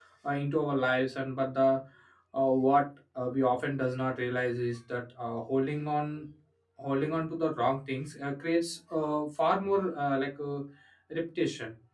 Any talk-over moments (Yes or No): No